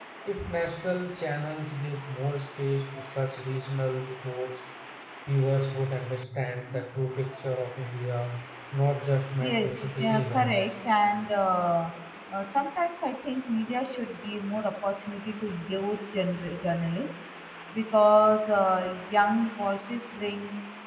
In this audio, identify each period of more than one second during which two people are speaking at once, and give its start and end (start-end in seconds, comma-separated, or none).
9.4-10.7